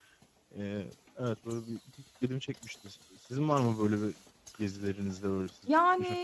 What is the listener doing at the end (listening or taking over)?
taking over